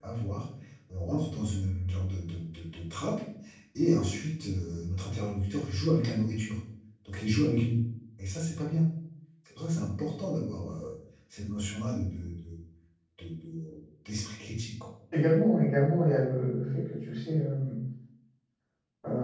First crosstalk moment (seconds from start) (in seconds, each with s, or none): none